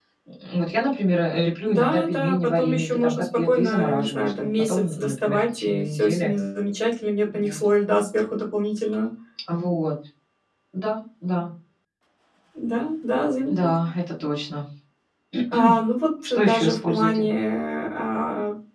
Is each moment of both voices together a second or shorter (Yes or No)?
No